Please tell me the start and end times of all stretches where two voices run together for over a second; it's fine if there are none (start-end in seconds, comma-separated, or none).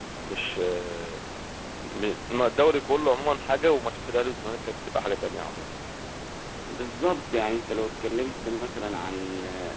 none